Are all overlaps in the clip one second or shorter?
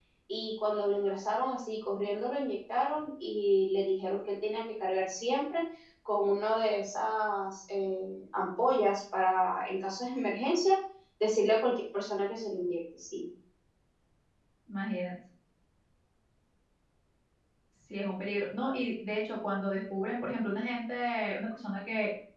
Yes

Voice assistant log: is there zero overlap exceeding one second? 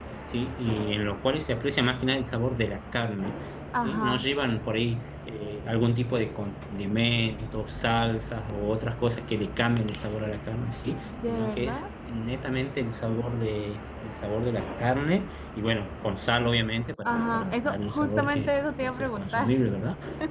No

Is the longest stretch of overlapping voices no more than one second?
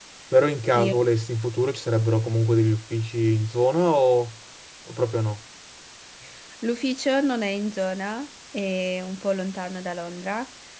Yes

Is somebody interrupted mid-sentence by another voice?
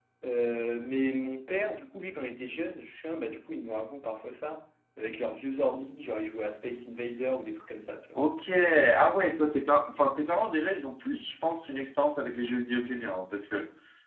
No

